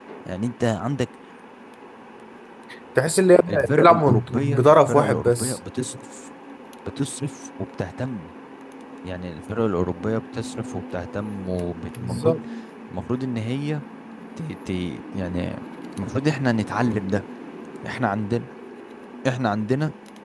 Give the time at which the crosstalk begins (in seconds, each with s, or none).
3.5 s